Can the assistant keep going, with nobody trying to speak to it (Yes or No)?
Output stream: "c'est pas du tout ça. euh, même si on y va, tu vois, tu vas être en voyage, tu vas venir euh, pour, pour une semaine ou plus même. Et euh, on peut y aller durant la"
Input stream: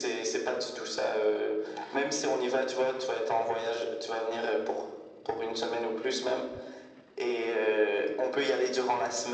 Yes